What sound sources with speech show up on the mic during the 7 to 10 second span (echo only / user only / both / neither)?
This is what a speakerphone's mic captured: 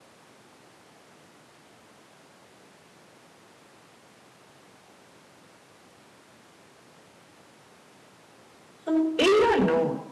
user only